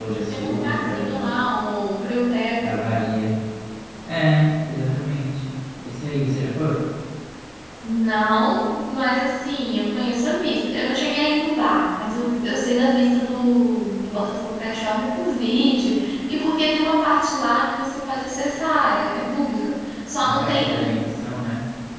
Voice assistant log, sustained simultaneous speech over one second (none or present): present